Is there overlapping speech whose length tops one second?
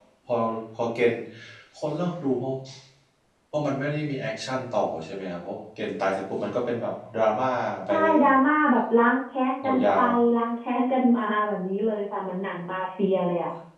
No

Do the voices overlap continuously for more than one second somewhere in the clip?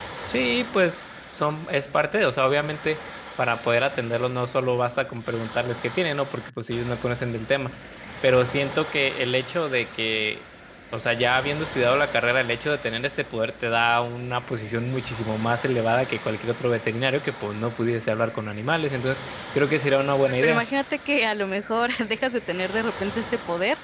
No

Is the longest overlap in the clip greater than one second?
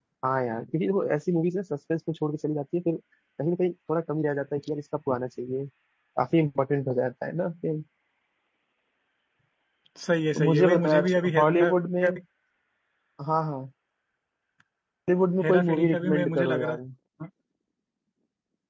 Yes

